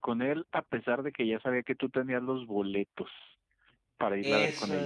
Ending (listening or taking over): taking over